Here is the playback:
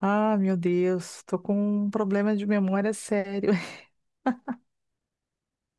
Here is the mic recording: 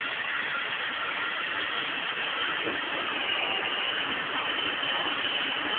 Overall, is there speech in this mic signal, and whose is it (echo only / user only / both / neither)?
neither